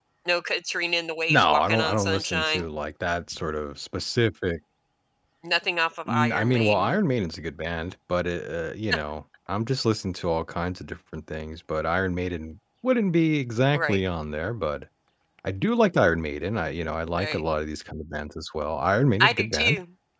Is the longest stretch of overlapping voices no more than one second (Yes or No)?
No